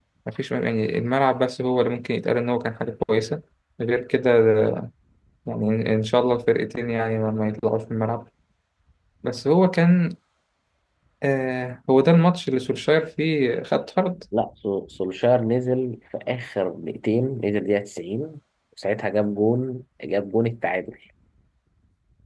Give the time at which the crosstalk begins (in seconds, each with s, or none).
none